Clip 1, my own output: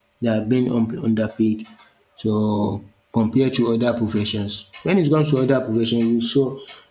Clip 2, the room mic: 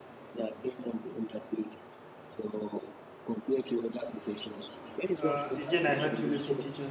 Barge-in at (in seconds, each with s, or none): 5.2 s